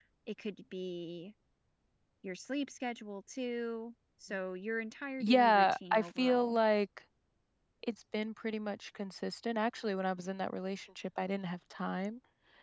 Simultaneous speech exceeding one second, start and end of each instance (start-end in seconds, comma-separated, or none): 5.2-6.6